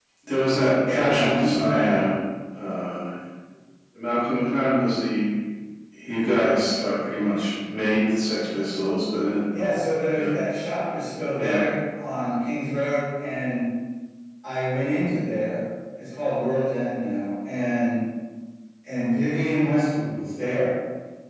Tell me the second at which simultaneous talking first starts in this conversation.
0.9 s

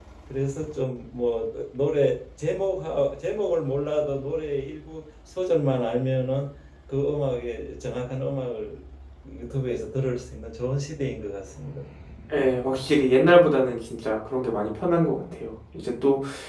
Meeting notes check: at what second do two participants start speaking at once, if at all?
none

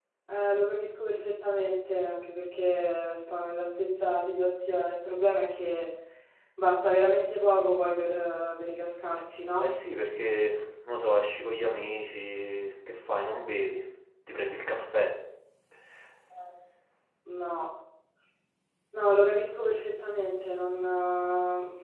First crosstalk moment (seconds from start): none

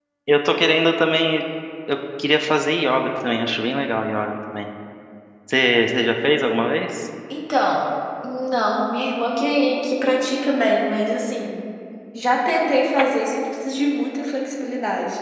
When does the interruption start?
none

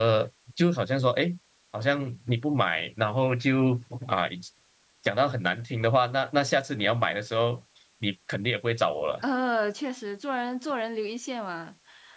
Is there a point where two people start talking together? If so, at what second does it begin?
none

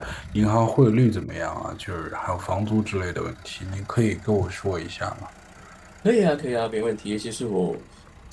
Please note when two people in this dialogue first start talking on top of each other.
none

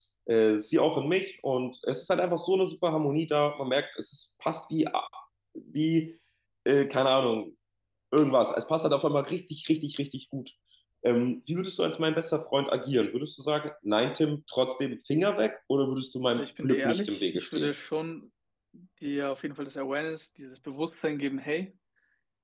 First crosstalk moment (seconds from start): 16.3 s

